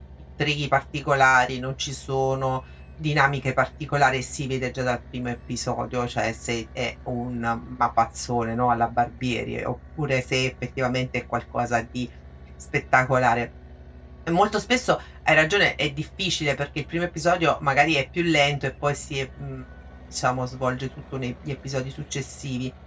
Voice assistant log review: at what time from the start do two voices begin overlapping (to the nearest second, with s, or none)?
none